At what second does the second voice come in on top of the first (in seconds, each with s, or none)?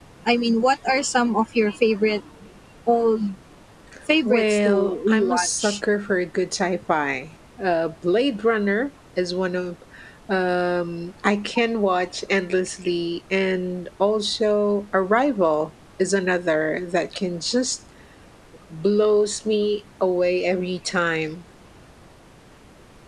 4.2 s